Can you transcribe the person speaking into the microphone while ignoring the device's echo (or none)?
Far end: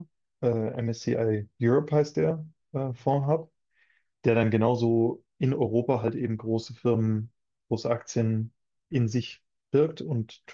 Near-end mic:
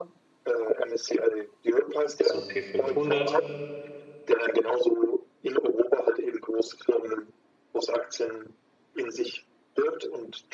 S&P 500.